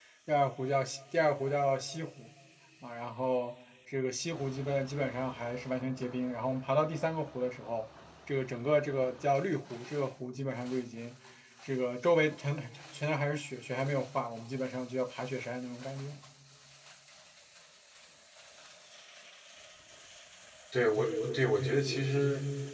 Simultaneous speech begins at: none

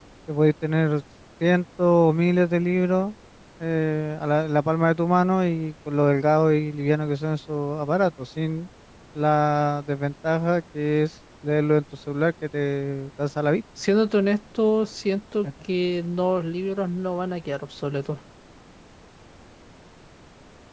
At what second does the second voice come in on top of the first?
none

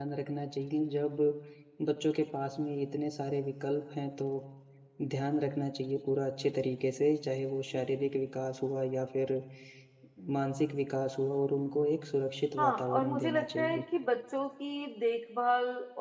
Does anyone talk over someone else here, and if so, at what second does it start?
13 s

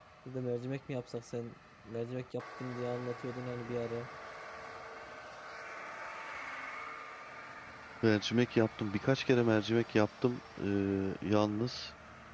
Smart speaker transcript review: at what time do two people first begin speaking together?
none

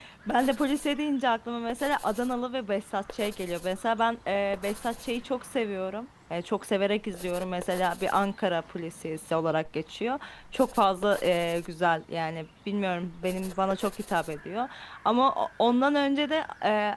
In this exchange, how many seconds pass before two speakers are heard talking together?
none

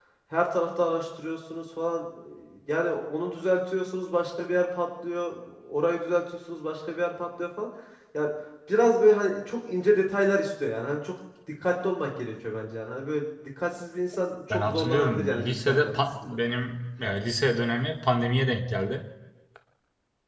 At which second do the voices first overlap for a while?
15 s

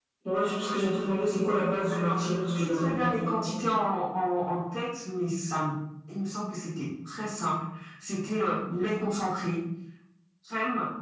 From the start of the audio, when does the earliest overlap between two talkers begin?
2 s

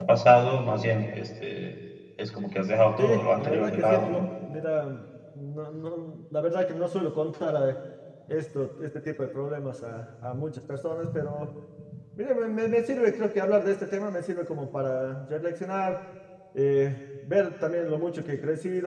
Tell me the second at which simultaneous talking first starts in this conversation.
3 s

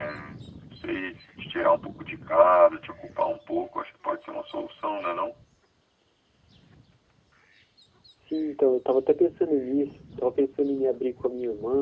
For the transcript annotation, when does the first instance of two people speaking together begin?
none

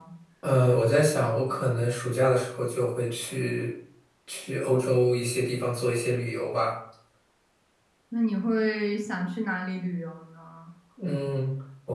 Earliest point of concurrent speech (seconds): none

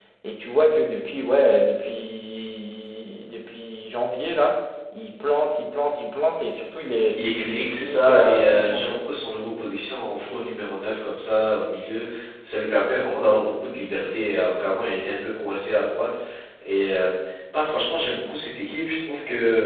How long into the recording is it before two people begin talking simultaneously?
7 s

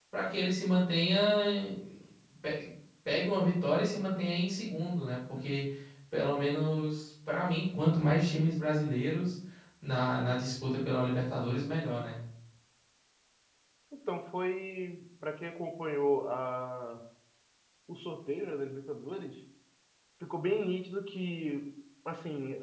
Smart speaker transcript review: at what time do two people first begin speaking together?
none

